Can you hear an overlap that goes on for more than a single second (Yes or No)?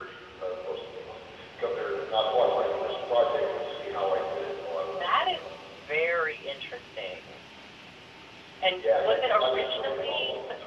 Yes